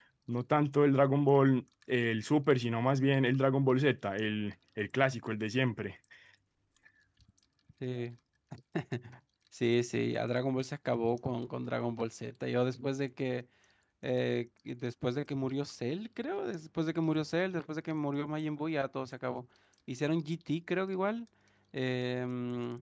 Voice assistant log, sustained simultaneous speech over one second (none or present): none